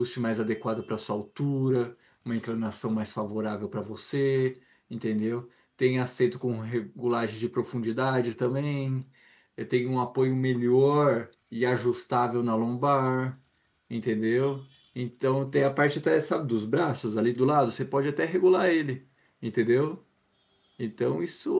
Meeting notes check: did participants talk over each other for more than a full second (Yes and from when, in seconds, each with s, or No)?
No